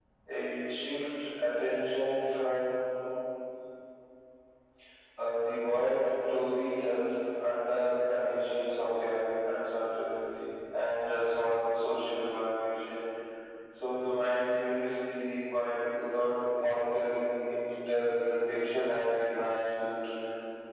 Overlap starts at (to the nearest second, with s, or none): none